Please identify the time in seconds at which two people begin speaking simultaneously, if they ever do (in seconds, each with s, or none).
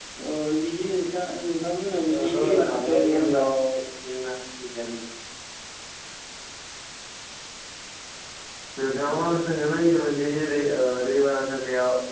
2.1 s